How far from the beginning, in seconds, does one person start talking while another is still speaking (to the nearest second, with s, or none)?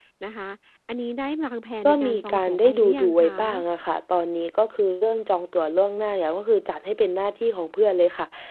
2 s